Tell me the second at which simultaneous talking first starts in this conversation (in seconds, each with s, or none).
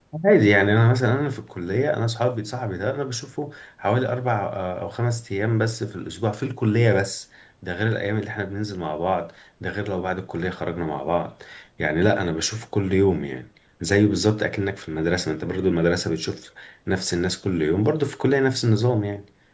none